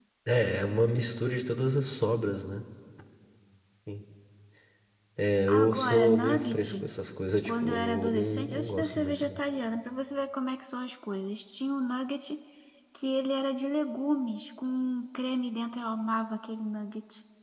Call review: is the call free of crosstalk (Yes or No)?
No